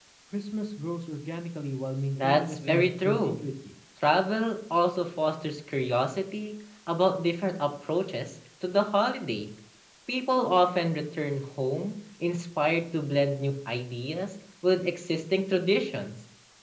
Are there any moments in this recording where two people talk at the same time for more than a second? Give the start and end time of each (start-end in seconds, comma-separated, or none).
2.2-3.4